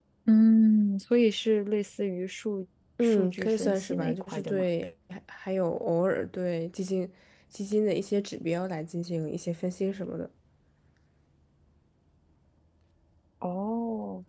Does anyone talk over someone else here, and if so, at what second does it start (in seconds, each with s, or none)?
3.0 s